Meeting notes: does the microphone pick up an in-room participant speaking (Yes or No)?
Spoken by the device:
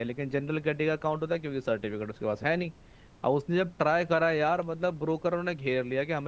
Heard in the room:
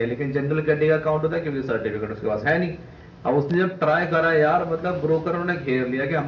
No